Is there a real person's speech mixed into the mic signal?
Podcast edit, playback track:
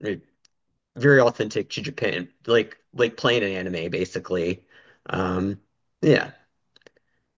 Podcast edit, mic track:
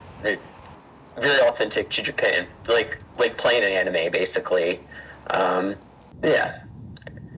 No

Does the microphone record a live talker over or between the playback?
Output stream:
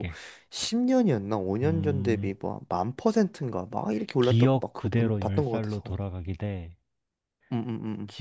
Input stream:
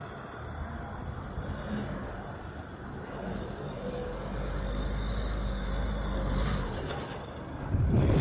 No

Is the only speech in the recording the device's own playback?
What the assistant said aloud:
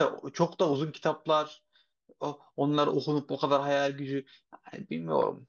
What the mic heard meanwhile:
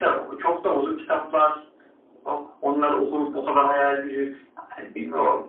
Yes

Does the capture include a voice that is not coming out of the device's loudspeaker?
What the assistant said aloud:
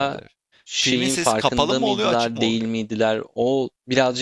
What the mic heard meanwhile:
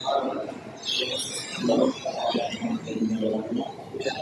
No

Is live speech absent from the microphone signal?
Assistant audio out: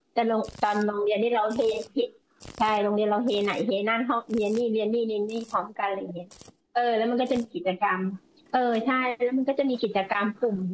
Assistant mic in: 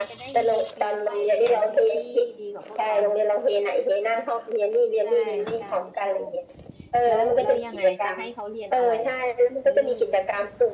No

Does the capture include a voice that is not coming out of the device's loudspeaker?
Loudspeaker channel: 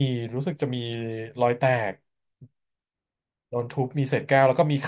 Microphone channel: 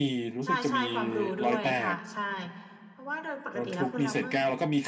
Yes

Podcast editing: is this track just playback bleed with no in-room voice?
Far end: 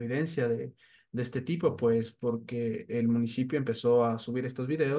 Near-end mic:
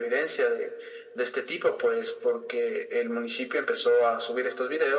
Yes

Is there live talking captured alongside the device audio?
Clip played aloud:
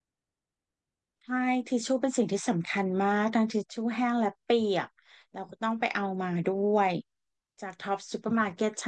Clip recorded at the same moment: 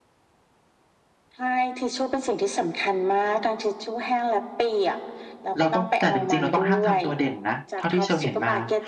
Yes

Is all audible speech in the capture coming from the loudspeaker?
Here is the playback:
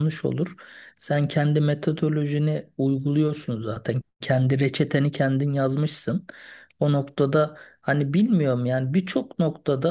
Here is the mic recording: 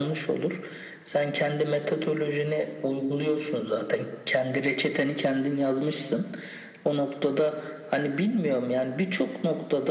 Yes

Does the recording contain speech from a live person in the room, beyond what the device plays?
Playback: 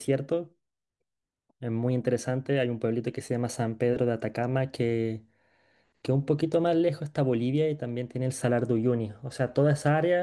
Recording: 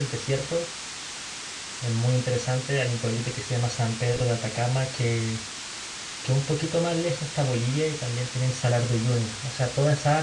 No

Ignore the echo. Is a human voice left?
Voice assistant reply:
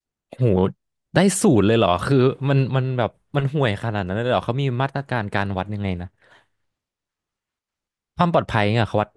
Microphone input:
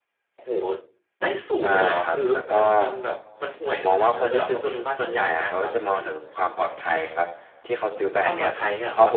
Yes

